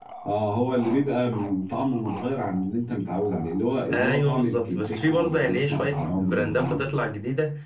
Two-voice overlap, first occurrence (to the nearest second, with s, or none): 4 s